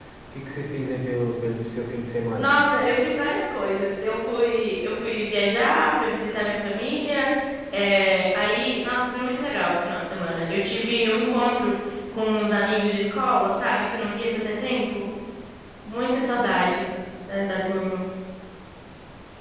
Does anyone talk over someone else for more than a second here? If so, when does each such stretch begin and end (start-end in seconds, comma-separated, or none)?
none